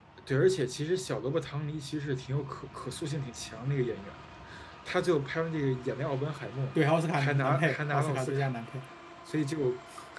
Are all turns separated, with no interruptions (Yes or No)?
No